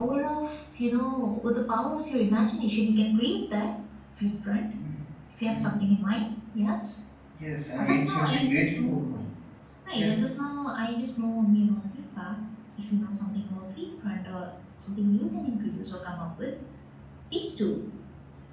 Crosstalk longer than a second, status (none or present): present